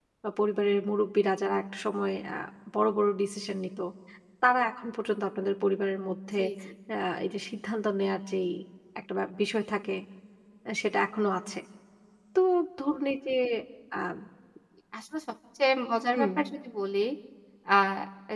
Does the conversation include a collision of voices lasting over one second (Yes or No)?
No